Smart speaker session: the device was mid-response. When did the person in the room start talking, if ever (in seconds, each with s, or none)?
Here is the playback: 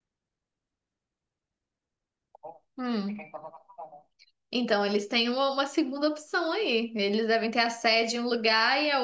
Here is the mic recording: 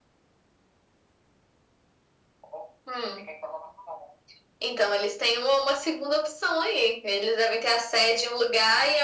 none